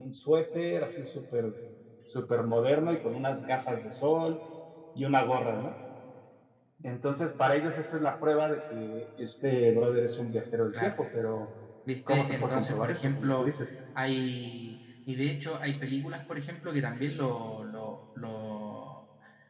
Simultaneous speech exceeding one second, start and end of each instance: 12.1-13.5

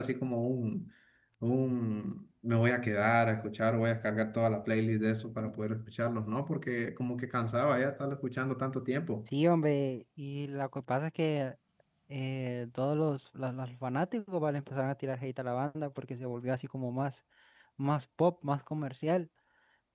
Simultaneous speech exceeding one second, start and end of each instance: none

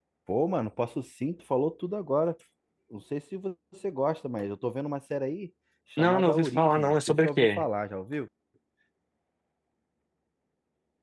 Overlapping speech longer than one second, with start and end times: 6.0-7.6

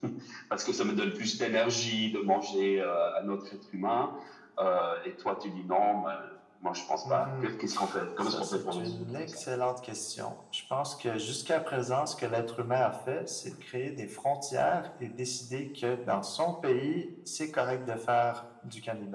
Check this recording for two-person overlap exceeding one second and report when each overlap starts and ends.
8.2-9.4

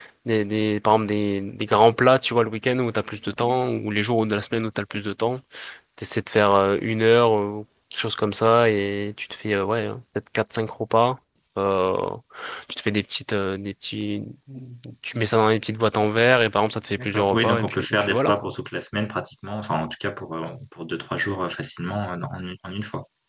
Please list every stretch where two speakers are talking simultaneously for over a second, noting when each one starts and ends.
17.0-18.5

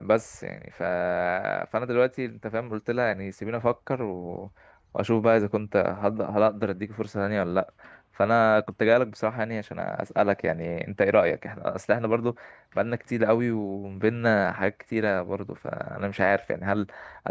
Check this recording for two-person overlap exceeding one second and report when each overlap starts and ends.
none

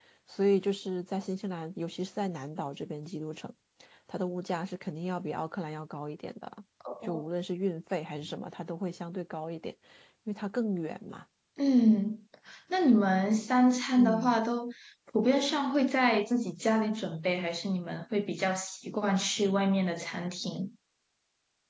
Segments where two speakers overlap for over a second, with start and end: none

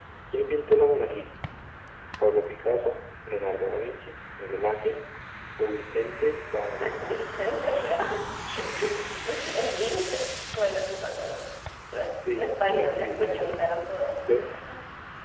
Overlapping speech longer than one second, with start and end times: 12.3-13.6

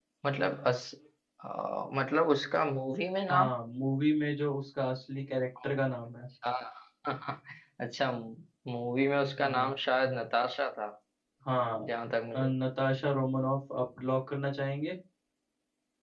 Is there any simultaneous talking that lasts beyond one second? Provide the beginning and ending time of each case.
none

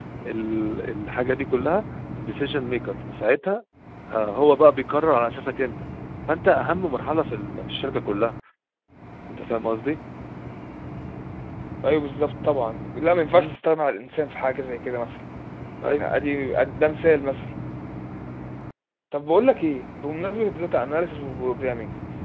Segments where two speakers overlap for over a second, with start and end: none

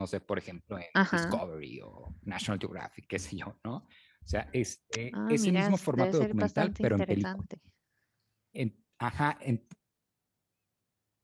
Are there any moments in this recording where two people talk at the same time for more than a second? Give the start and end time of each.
5.3-7.5

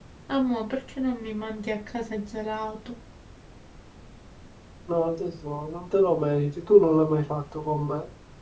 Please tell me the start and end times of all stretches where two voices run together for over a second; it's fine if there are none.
none

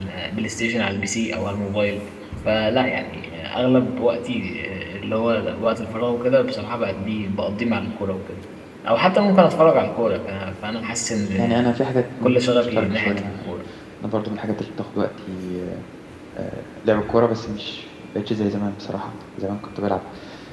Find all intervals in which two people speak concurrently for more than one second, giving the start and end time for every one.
12.2-13.5

